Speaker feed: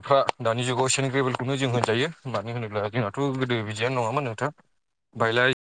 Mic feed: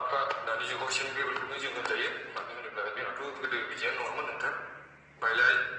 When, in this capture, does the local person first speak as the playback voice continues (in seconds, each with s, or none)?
none